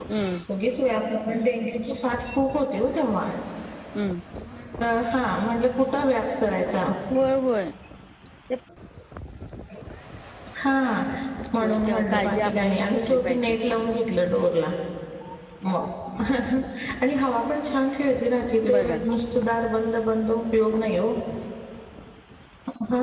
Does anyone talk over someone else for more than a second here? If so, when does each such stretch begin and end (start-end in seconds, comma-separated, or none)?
11.6-13.6